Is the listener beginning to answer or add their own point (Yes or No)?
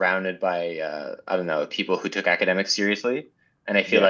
No